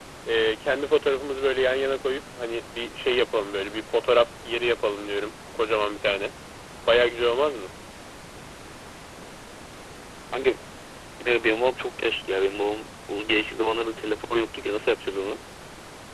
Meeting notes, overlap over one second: none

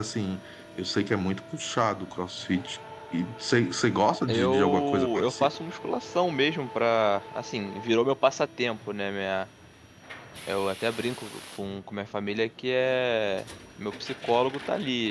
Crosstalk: present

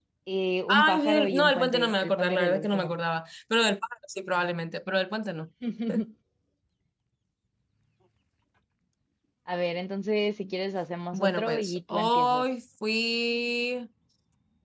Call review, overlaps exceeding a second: present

